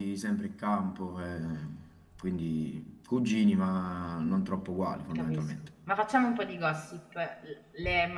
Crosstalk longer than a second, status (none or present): none